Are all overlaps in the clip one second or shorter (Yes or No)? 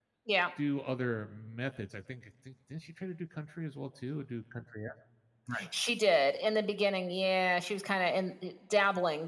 Yes